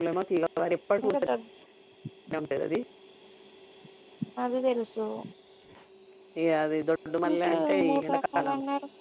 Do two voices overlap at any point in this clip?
Yes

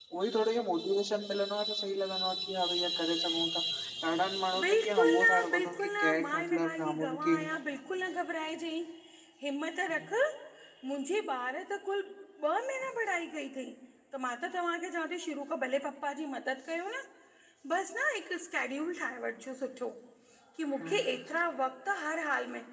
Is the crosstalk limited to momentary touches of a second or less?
No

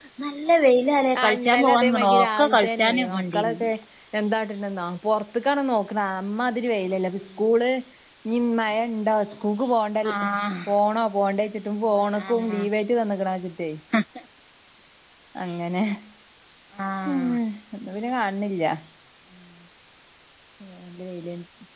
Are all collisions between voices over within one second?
No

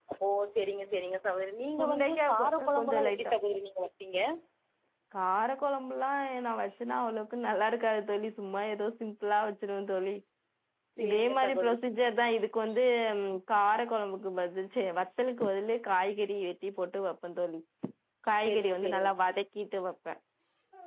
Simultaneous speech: Yes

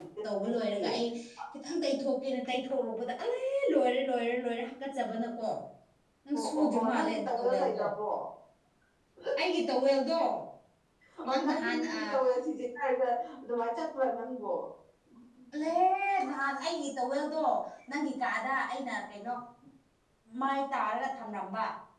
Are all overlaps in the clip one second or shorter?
No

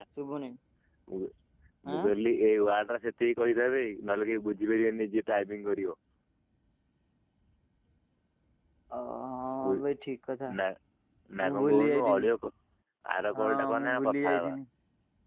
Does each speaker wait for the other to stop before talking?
No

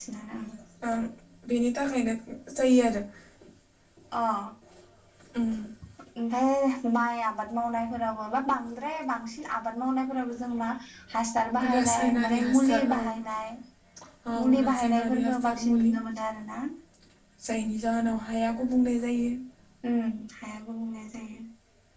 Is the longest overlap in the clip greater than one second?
Yes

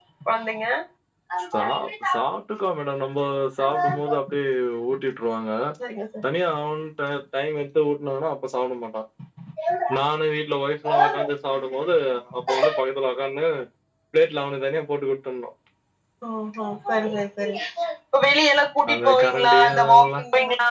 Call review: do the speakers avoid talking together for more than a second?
No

